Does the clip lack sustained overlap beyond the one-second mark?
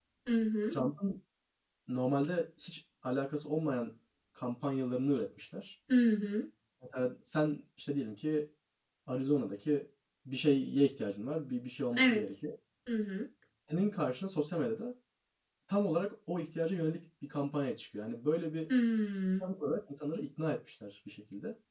Yes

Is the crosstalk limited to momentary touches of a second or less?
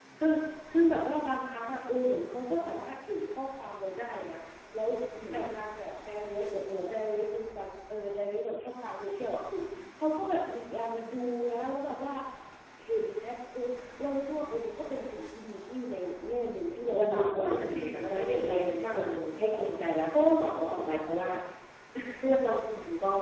No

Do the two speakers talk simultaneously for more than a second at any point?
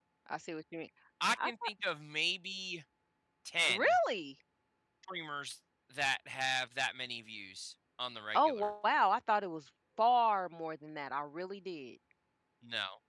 No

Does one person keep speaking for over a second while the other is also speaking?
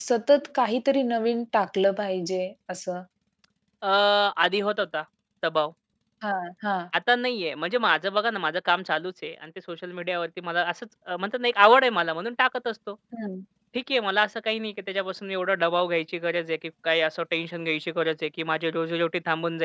No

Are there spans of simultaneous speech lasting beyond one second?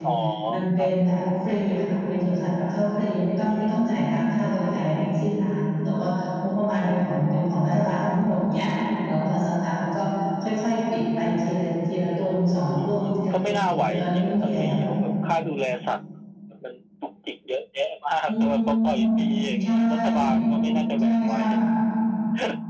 Yes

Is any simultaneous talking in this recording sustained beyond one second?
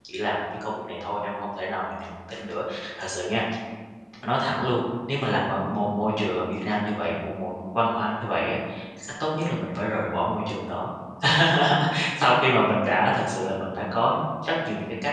No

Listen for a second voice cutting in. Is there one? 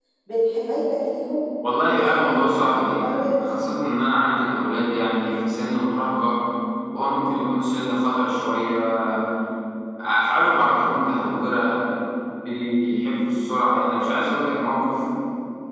Yes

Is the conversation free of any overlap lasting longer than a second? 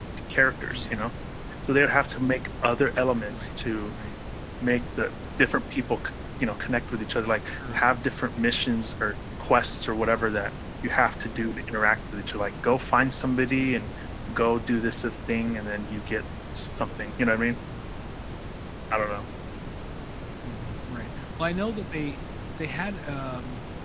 Yes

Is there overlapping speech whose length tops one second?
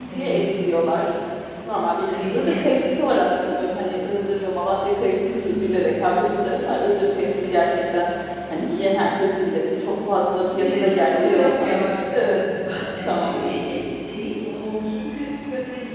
Yes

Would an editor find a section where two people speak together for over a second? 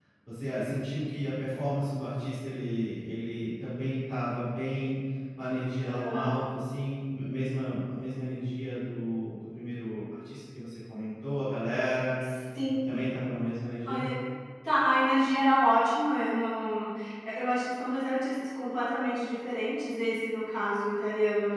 No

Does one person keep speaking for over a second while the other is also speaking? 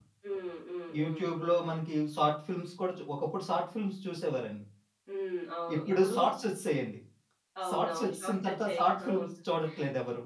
Yes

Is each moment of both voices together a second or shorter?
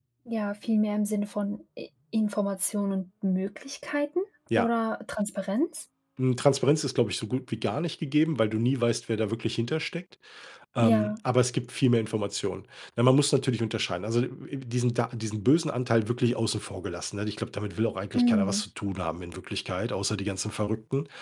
Yes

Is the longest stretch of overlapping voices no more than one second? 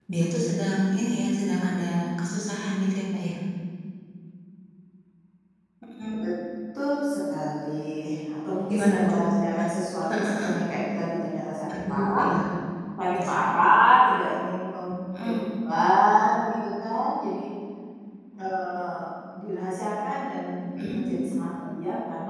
Yes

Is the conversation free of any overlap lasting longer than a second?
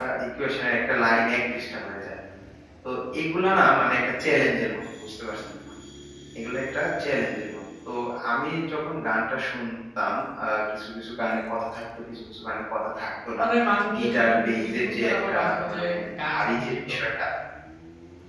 No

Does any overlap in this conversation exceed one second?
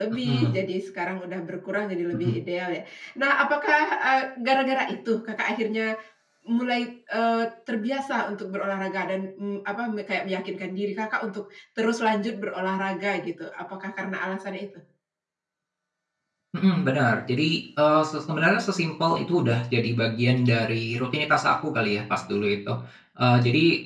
No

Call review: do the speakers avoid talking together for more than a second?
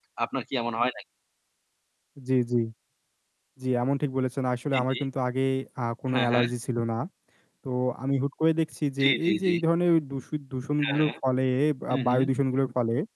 Yes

